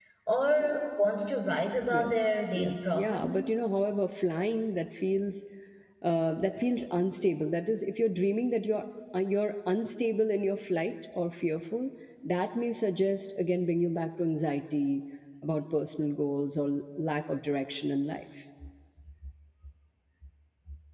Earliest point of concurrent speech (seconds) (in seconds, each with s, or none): 1.8 s